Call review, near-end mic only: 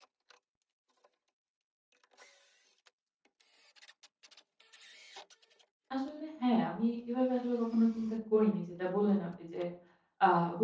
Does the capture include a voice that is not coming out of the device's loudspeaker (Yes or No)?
Yes